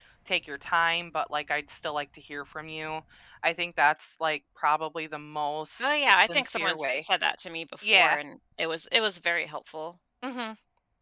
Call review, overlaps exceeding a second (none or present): present